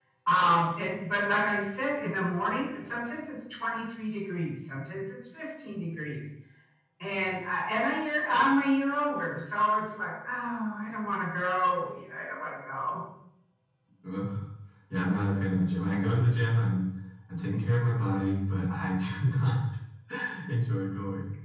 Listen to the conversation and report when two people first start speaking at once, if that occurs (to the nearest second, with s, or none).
none